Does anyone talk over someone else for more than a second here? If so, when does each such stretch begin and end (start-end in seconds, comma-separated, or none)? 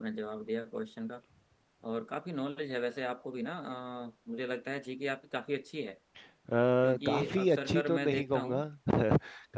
7.0-8.6